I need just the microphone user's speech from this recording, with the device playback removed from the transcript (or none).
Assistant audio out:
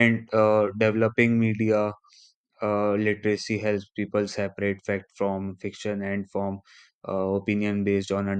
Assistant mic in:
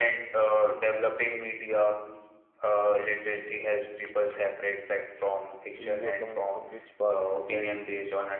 you you are coming from which part of society.